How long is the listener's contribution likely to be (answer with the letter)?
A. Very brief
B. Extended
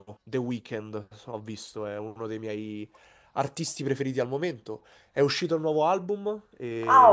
B